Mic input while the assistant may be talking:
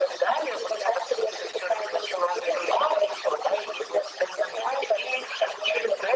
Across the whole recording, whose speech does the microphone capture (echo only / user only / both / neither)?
echo only